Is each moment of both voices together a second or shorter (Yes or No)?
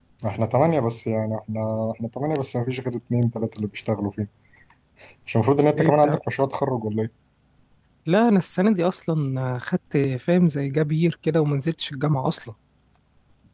Yes